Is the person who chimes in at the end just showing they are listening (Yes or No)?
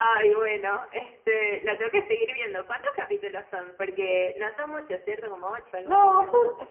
No